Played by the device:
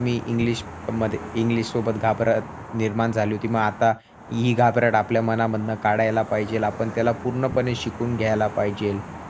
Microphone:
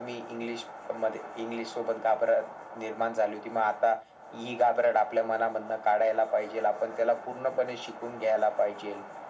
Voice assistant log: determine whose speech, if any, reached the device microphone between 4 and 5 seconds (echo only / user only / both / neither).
echo only